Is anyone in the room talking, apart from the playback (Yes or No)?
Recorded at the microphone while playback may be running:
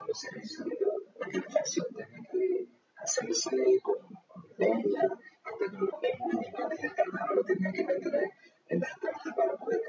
No